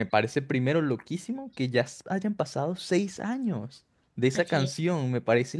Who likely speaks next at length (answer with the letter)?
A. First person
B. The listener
A